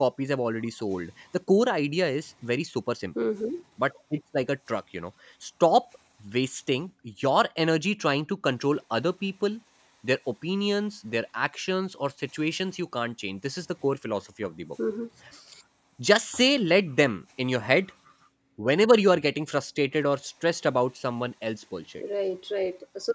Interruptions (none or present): none